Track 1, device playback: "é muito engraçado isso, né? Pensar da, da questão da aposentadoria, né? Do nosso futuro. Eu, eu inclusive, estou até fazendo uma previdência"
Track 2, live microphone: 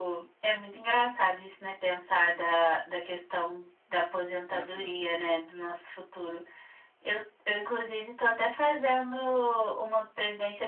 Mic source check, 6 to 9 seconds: echo only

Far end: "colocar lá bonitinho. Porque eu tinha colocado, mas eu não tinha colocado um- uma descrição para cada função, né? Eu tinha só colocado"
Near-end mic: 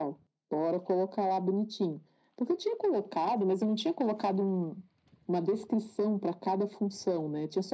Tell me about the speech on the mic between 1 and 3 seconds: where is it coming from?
echo only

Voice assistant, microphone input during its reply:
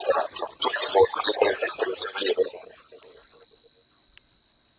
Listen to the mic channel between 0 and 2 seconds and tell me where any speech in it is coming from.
echo only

